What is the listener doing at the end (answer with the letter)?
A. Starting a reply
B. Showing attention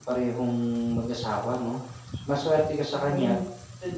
B